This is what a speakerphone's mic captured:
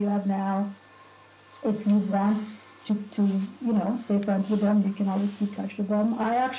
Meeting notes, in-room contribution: none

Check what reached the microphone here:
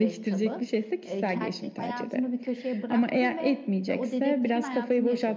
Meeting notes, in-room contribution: present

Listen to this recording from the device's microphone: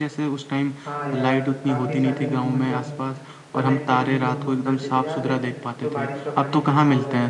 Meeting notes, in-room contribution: present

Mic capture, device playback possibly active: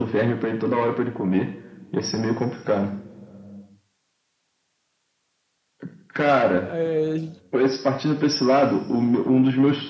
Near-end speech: present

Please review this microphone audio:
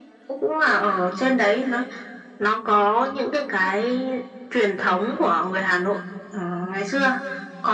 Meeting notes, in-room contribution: none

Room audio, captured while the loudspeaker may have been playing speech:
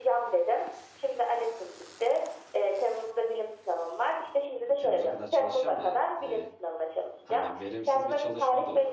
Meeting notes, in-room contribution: present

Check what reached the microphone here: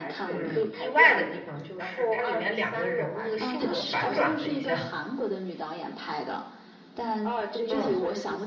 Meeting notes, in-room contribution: present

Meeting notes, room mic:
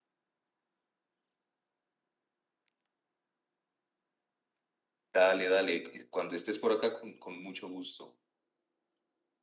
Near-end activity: present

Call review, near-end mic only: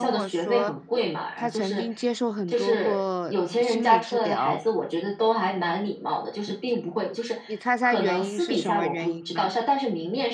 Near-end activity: present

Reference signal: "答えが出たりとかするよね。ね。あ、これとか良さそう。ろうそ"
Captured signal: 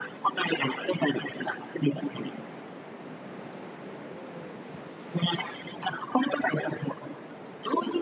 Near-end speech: none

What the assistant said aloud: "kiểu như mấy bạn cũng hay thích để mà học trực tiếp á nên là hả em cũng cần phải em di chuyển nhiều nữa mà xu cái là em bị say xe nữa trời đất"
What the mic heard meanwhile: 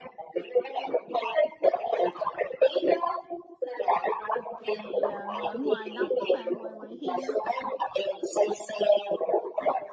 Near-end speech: present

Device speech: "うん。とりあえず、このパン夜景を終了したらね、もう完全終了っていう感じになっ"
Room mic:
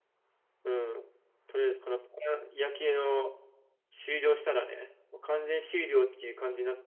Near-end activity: none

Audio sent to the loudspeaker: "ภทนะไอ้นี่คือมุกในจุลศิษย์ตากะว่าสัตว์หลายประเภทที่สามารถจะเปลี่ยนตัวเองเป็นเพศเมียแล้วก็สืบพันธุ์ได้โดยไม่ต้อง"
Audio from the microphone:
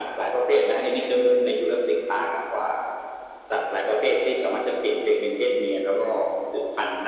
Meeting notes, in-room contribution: none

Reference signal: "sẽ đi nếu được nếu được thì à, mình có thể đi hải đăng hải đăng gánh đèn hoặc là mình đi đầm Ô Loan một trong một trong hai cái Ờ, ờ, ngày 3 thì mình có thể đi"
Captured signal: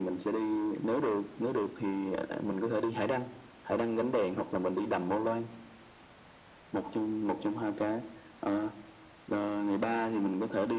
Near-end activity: none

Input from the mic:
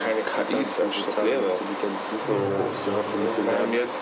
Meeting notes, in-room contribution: present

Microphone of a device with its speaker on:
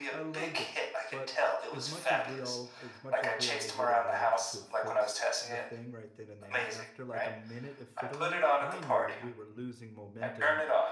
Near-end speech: present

